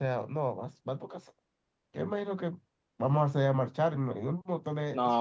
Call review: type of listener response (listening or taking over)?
taking over